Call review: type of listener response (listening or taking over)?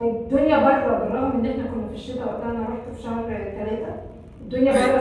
listening